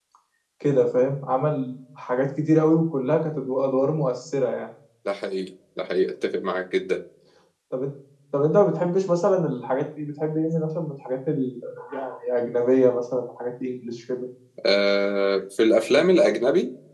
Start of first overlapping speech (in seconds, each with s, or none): none